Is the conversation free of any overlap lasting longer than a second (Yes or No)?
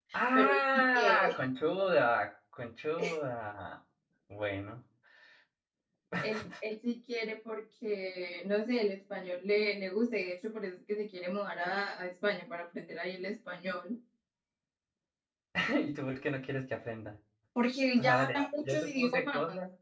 No